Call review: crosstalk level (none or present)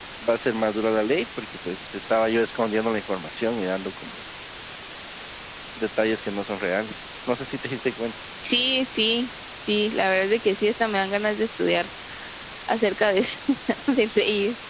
none